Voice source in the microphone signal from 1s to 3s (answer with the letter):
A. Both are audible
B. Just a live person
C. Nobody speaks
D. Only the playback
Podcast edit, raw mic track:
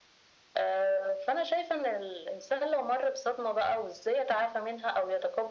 D